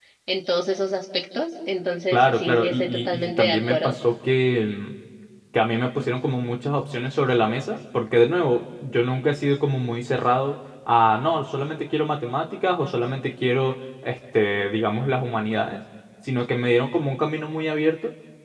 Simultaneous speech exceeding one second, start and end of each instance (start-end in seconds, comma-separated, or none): 2.1-4.0